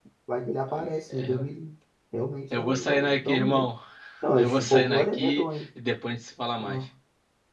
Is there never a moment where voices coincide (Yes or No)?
No